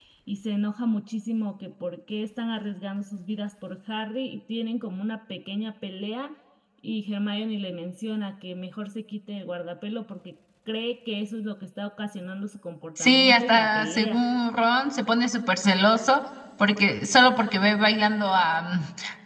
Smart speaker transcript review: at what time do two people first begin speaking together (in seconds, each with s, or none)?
13.0 s